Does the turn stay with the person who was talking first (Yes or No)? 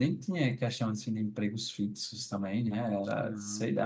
Yes